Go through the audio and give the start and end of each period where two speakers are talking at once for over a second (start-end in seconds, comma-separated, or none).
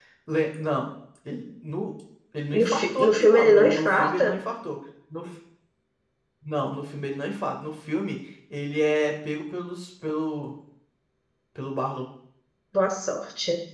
2.5-4.4